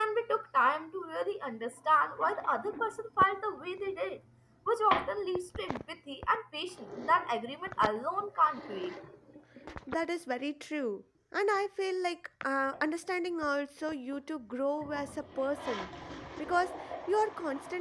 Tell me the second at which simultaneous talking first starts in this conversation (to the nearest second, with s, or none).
none